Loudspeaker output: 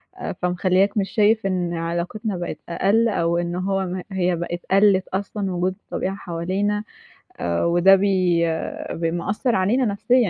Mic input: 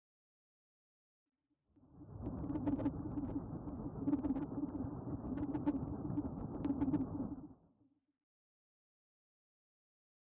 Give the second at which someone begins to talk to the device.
none

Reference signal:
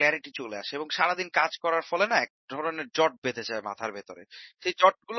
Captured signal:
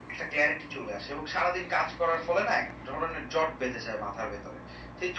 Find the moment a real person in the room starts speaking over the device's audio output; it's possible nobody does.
none

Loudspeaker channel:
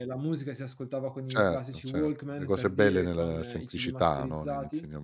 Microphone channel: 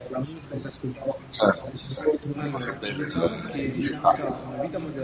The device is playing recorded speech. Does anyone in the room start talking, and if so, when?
2.4 s

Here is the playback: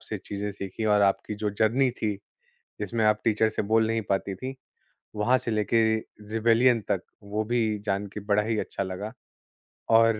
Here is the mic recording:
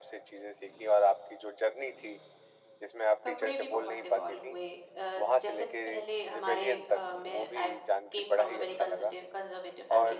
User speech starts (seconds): 3.2 s

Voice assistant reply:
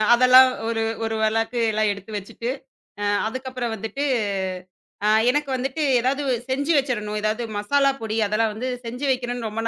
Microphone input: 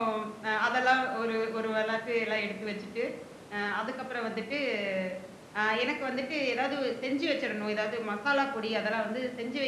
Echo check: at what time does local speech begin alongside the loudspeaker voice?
none

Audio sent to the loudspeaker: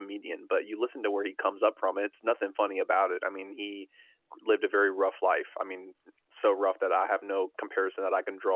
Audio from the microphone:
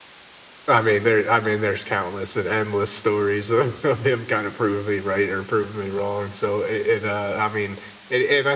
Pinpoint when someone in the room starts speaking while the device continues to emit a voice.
0.7 s

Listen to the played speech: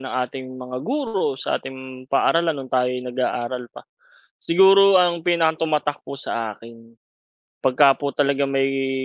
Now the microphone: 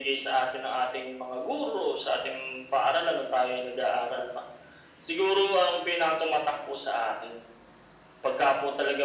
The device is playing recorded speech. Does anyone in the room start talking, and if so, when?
none

